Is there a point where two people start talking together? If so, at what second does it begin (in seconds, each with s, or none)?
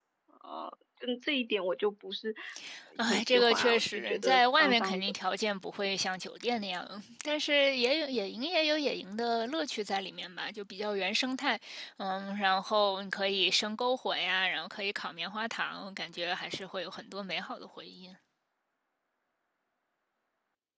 3.1 s